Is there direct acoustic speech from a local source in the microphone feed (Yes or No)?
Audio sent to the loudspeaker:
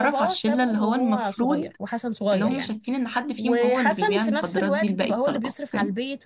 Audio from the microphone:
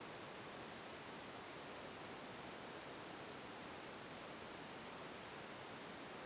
No